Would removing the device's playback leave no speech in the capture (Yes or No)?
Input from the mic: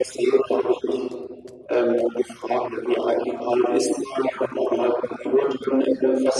Yes